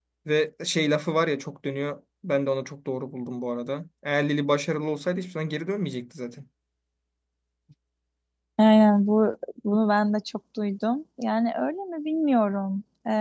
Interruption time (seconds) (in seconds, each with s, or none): none